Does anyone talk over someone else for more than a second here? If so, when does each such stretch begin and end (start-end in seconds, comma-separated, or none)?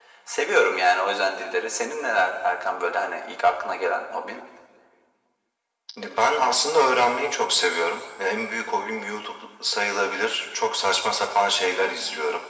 none